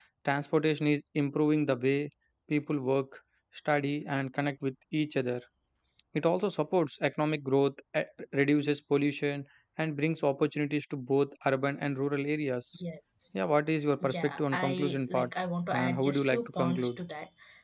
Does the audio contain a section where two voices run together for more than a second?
Yes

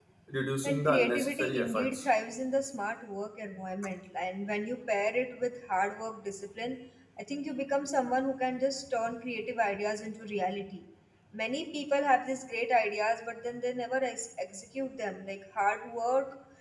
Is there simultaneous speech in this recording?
Yes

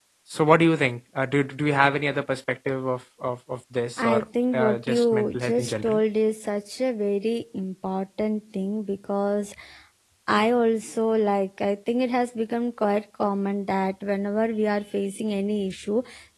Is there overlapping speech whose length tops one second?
Yes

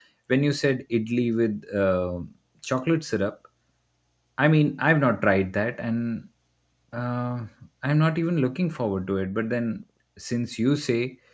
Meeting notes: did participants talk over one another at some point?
No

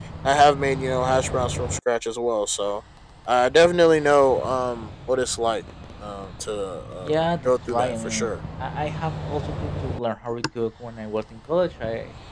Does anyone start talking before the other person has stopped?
Yes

